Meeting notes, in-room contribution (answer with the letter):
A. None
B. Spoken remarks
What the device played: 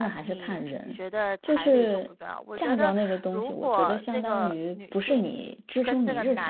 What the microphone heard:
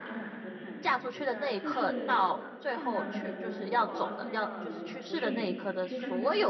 B